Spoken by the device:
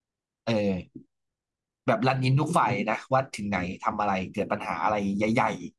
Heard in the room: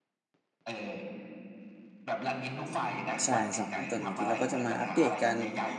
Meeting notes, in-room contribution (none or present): present